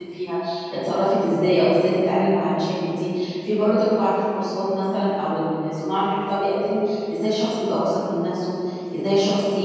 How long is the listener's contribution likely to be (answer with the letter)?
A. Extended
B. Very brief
B